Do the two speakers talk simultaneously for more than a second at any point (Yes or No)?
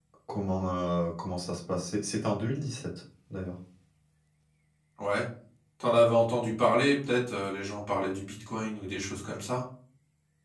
No